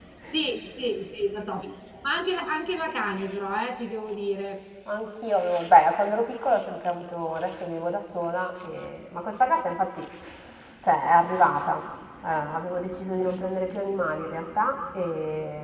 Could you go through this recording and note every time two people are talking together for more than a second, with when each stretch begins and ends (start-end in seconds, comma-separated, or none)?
none